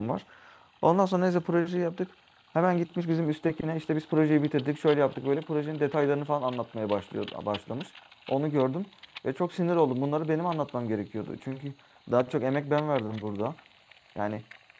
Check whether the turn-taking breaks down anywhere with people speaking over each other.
No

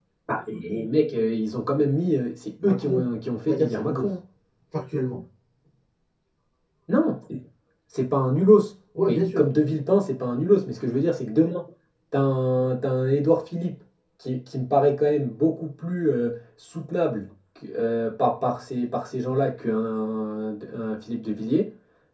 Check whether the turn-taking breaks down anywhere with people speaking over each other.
Yes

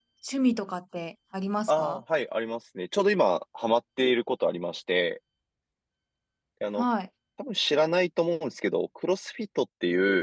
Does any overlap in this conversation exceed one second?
No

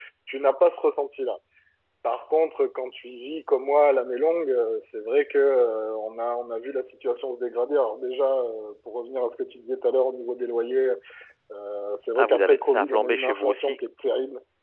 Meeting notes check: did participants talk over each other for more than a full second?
Yes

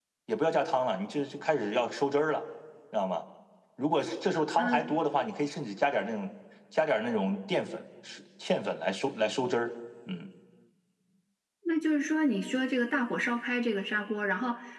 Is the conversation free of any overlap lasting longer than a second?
Yes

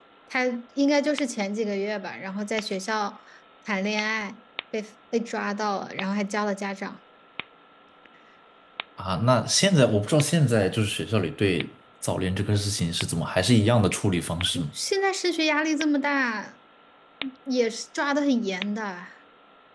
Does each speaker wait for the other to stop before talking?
Yes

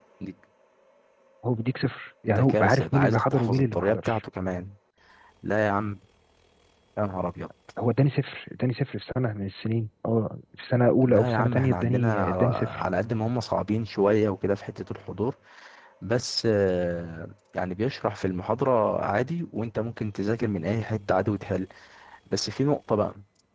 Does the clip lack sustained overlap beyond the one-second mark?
No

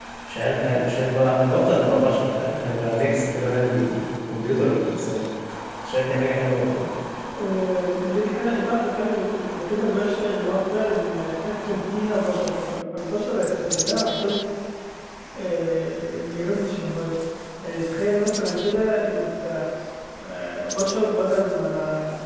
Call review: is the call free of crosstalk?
Yes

